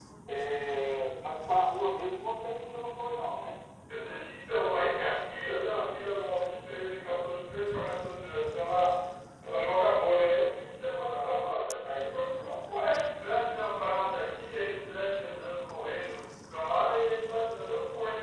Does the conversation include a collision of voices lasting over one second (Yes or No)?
No